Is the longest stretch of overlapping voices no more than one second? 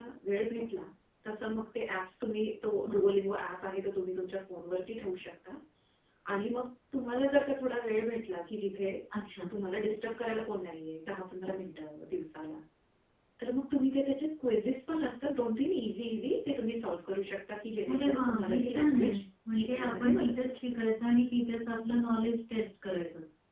No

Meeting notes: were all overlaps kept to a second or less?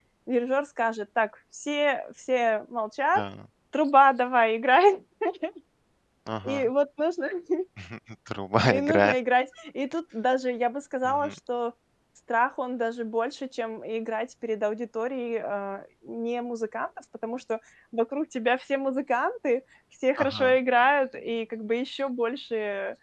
Yes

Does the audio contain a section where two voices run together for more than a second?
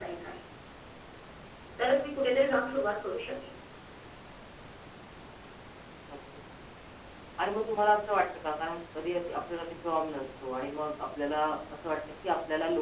No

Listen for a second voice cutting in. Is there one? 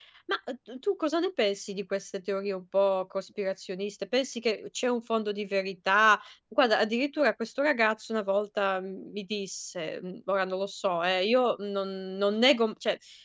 No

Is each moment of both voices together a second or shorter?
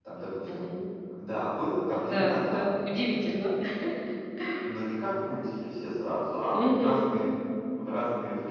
No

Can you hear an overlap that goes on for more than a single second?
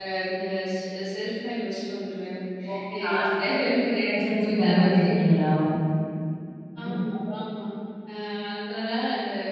Yes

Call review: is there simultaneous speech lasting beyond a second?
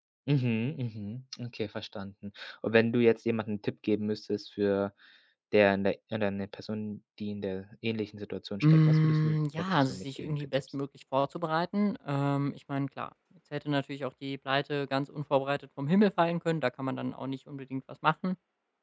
Yes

